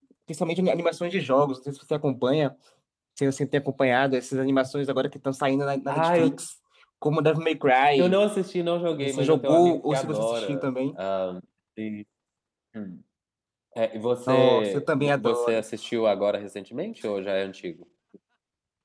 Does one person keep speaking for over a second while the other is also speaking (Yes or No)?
Yes